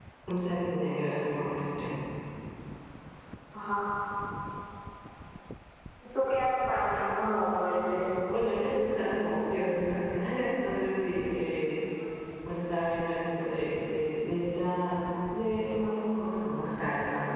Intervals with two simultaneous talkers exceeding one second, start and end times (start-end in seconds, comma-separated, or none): none